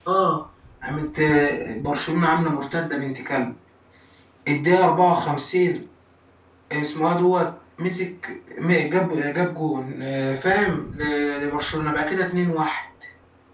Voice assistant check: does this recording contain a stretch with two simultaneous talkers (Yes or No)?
No